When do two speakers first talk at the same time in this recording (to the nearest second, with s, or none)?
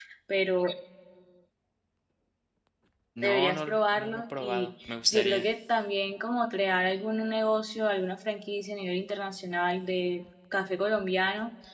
3 s